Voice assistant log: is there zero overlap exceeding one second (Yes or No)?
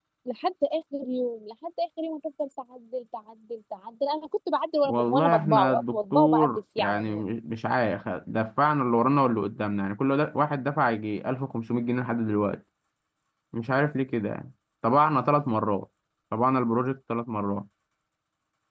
No